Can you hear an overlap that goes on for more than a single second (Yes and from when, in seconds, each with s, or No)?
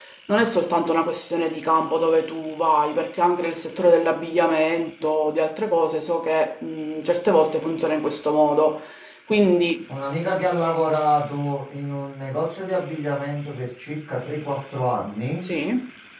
No